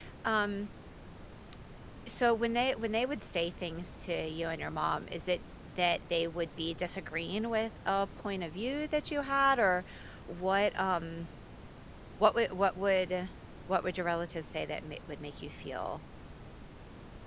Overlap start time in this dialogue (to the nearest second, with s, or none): none